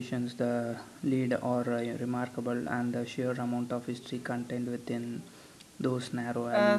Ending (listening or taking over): taking over